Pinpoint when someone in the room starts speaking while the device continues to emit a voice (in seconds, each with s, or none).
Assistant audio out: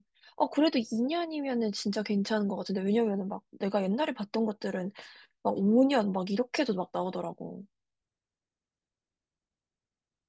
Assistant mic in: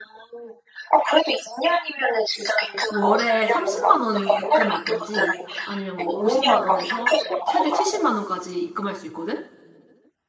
2.9 s